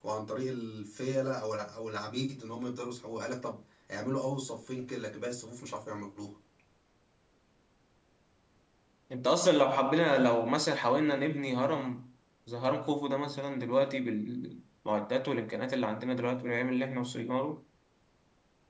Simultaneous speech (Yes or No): No